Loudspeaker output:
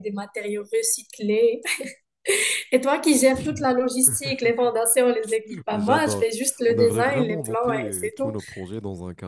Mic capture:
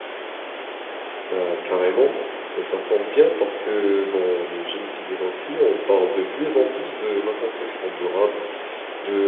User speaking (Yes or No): Yes